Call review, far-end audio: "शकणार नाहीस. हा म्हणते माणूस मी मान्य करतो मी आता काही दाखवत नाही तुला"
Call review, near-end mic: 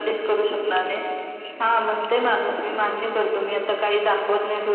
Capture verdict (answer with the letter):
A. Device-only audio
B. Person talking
A